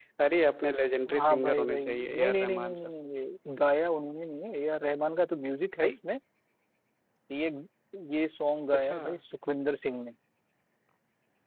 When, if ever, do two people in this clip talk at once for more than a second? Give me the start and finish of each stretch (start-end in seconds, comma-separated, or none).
1.1-2.9